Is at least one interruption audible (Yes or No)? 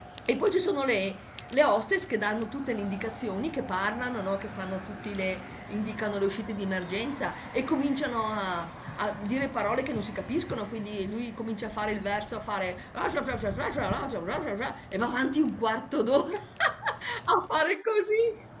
No